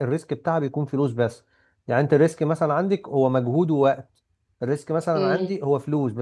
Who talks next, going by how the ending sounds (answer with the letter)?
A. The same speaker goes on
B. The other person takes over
A